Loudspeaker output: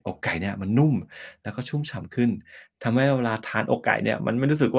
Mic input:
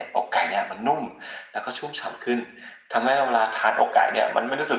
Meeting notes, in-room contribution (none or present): none